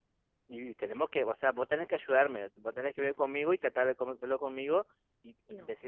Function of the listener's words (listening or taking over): listening